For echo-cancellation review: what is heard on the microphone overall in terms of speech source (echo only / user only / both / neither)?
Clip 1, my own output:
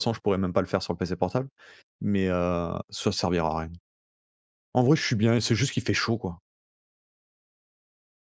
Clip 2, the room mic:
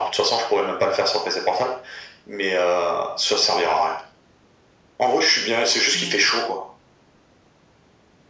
both